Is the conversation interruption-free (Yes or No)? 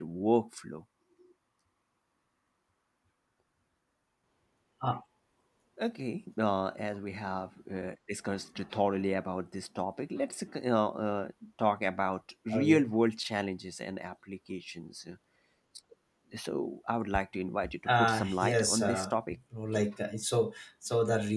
No